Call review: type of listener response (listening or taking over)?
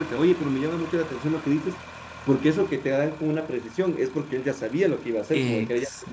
listening